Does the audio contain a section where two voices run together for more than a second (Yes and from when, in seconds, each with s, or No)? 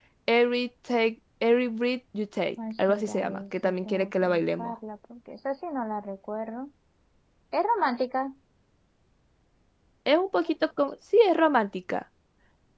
Yes, from 2.6 s